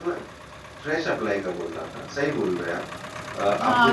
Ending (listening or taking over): taking over